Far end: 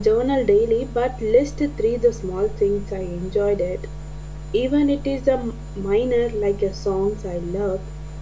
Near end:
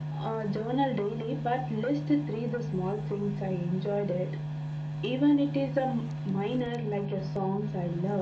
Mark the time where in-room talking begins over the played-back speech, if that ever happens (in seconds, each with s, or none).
none